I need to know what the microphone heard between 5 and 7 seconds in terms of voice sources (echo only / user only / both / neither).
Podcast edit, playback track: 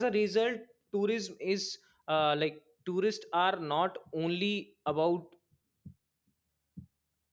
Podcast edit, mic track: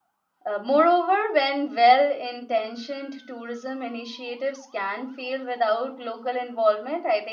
user only